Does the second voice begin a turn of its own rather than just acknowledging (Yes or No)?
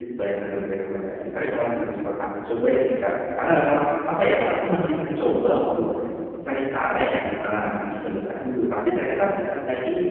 No